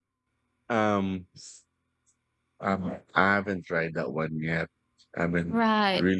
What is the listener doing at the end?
listening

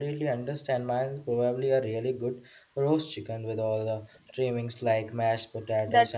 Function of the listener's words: taking over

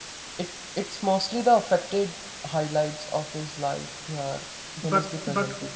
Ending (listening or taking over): taking over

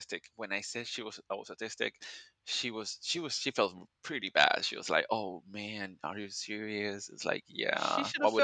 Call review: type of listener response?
taking over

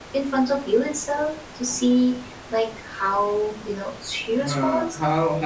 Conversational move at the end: taking over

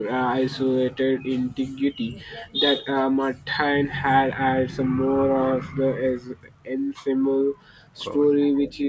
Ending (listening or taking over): listening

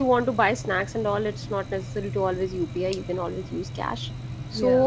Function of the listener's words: listening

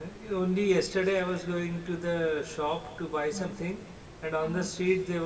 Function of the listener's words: listening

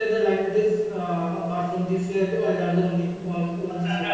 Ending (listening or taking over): taking over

